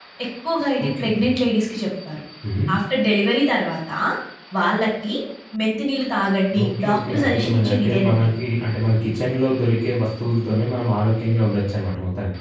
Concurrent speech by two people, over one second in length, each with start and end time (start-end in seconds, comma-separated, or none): 6.7-8.3